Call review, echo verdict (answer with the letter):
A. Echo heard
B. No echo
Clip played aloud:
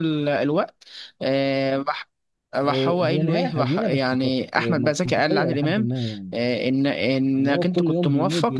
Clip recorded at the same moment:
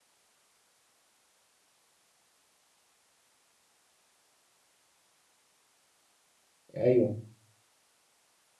B